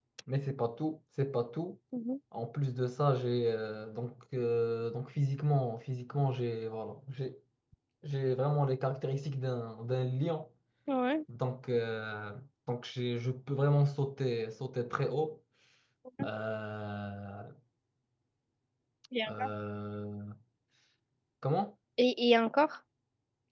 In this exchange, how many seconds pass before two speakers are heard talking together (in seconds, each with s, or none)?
none